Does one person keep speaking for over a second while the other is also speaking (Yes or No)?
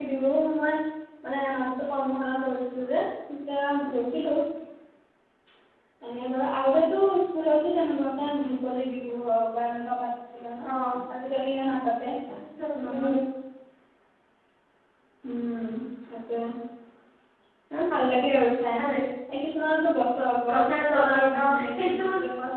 Yes